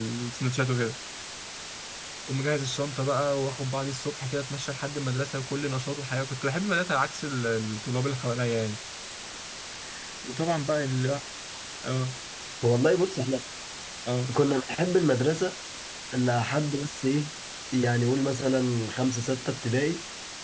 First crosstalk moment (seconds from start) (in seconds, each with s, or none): none